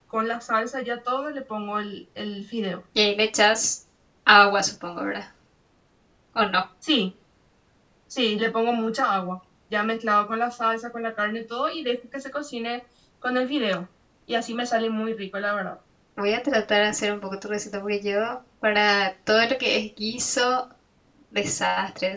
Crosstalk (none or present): none